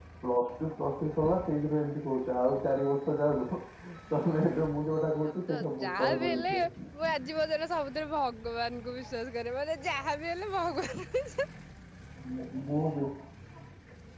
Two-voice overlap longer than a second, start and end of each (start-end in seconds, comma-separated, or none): 5.2-6.5